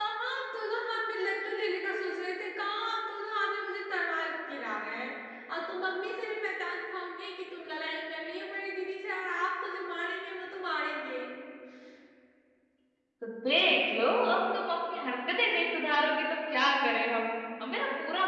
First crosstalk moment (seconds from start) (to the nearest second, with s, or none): none